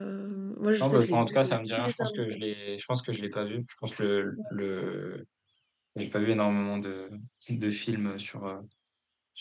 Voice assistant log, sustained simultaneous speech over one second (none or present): present